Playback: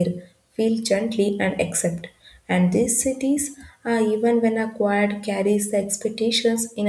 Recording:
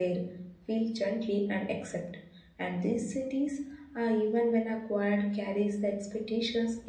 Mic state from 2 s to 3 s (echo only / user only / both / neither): echo only